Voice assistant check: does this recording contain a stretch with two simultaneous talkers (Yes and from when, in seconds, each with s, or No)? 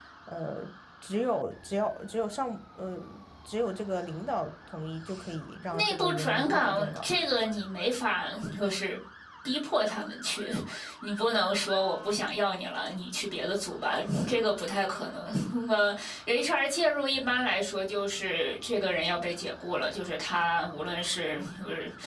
Yes, from 5.7 s